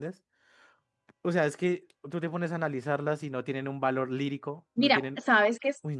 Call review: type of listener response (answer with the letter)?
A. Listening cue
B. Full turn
B